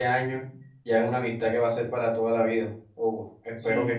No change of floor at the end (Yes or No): No